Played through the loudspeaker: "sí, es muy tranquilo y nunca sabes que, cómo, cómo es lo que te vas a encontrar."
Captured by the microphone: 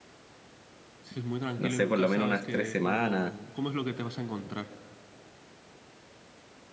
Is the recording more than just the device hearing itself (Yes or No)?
Yes